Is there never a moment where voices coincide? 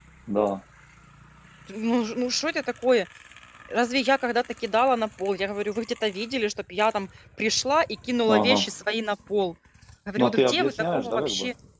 No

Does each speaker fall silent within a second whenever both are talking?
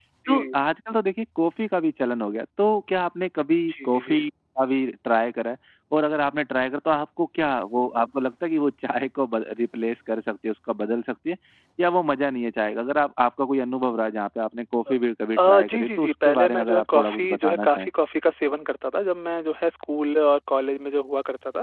No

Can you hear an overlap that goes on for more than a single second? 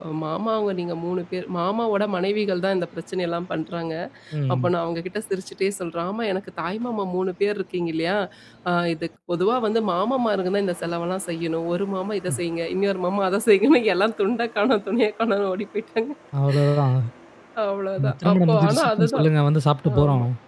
Yes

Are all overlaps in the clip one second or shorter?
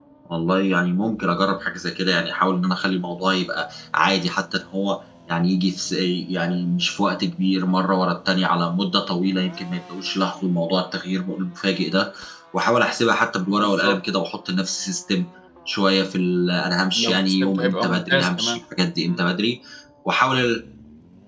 No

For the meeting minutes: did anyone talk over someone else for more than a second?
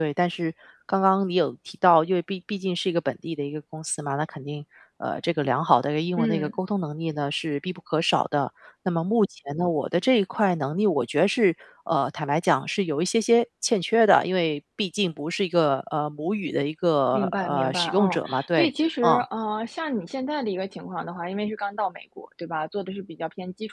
Yes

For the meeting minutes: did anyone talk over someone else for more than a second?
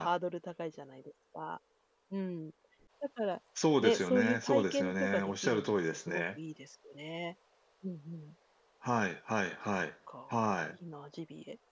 Yes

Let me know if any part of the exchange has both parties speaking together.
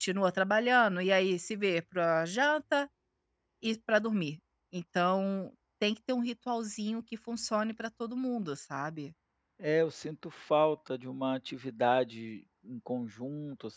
No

